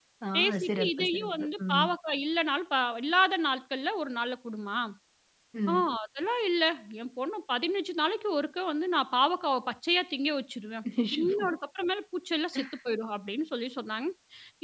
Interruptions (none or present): present